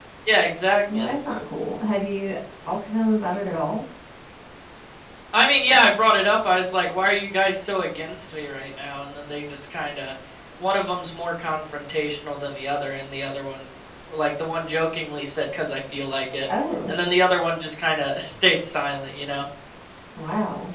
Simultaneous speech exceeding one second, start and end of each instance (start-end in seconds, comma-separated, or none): none